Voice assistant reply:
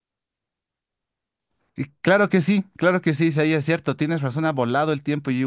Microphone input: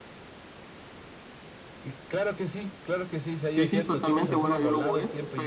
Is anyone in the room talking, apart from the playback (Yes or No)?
Yes